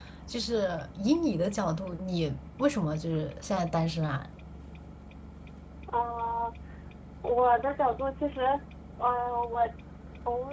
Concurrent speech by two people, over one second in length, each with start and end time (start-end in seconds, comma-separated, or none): none